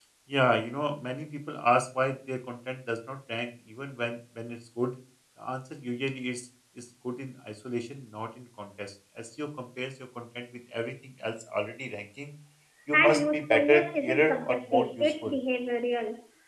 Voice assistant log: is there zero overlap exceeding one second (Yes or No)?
No